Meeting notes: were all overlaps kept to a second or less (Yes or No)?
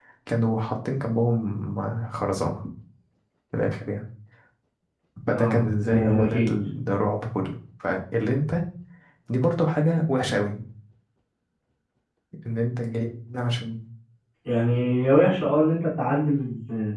No